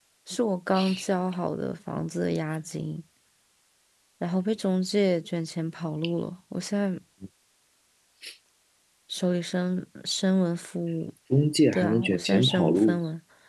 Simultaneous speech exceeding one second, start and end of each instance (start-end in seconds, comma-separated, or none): 11.7-13.0